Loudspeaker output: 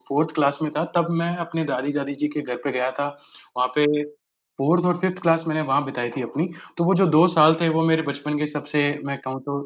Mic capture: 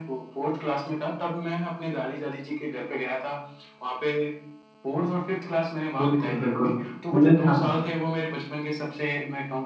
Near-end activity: present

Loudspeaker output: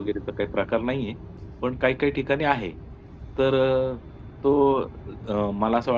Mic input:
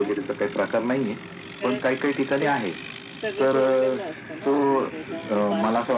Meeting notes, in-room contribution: present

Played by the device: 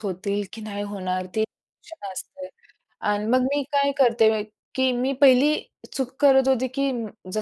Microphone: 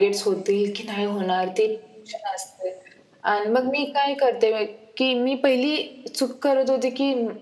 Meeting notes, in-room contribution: none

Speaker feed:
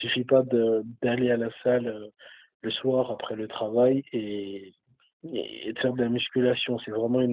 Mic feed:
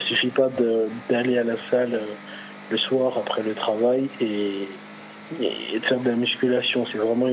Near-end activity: none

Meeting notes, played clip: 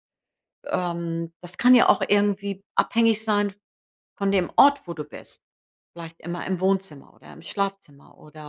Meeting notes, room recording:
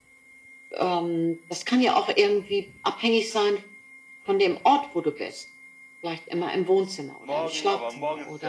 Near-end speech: present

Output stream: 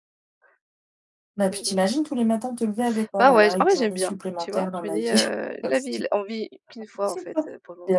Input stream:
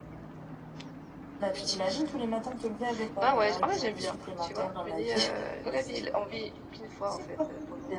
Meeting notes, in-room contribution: none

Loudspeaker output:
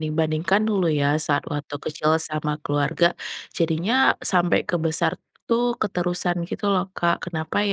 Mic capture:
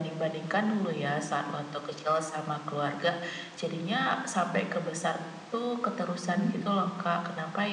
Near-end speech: present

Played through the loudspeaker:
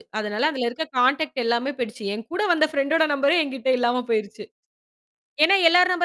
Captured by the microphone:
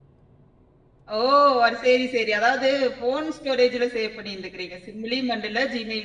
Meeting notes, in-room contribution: present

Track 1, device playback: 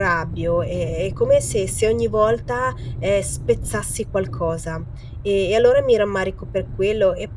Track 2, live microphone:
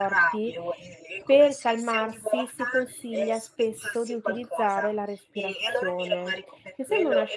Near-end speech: present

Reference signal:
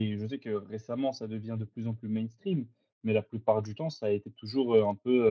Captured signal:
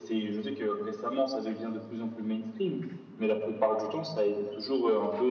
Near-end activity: none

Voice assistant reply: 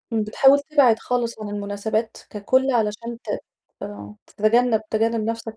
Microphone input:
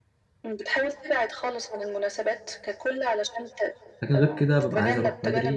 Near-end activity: present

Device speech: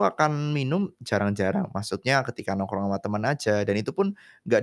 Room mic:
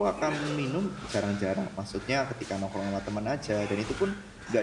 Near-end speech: none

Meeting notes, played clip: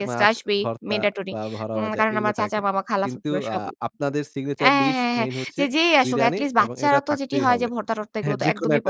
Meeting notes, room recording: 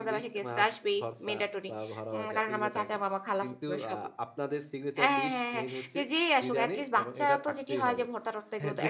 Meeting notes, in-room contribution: none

